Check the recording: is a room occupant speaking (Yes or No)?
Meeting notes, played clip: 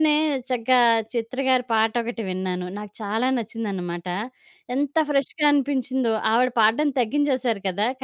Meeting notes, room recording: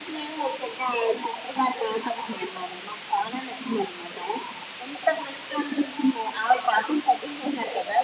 No